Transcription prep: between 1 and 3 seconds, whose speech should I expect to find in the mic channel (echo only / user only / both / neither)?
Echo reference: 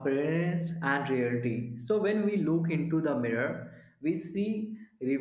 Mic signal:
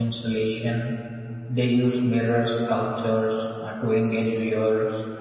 user only